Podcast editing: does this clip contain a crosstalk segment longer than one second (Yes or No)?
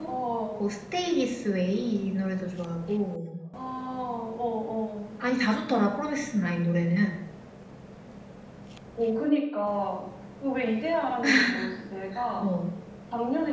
No